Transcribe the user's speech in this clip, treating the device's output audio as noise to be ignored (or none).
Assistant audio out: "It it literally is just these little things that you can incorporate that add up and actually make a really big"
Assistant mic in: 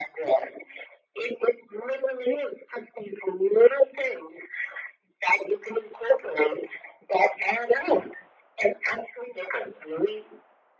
none